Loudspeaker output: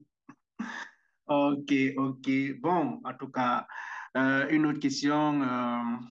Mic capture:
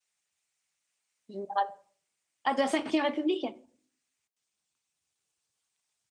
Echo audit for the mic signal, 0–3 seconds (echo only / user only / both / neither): user only